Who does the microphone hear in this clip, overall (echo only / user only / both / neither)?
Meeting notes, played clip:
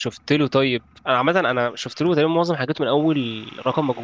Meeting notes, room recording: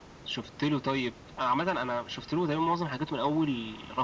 echo only